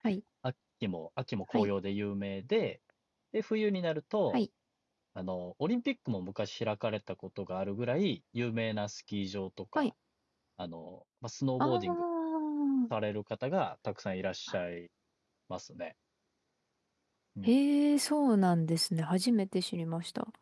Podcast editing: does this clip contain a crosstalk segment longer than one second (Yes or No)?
No